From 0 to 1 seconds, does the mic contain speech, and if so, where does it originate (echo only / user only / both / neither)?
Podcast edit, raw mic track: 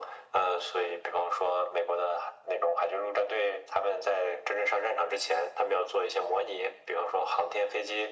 echo only